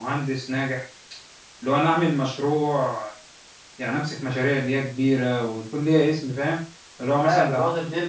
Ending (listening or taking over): taking over